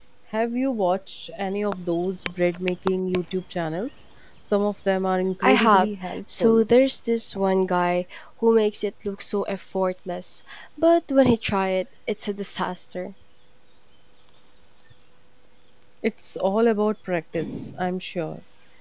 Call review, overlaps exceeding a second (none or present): present